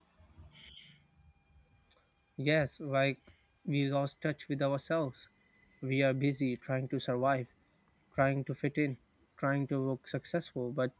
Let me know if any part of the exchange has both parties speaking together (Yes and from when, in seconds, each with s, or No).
No